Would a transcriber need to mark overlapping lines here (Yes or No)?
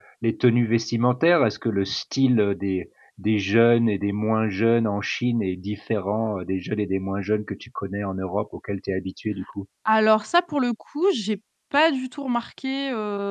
No